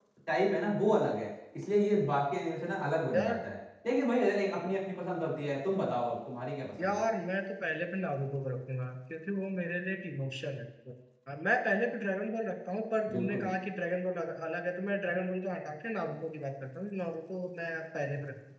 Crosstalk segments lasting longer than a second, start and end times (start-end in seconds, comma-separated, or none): none